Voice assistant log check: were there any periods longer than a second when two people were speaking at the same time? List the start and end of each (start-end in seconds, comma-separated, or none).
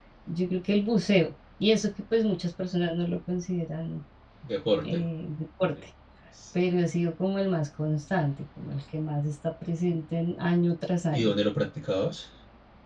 none